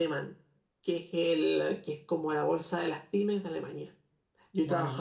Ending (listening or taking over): listening